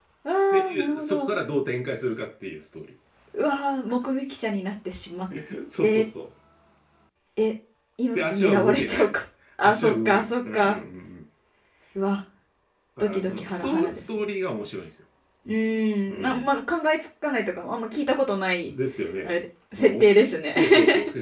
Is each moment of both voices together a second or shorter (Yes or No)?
No